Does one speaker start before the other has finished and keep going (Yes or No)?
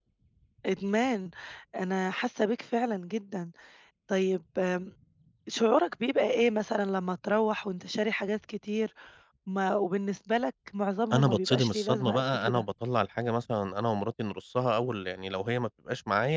Yes